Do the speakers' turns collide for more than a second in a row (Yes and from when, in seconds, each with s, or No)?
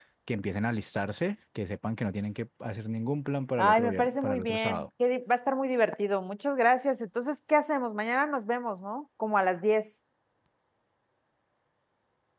Yes, from 3.6 s